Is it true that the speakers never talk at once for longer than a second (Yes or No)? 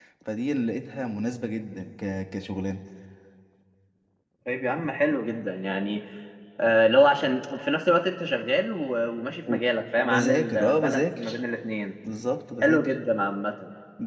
No